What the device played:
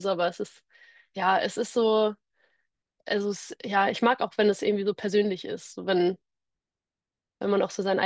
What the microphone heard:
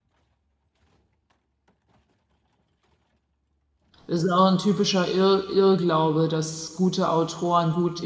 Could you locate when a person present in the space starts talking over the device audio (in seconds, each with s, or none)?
4.1 s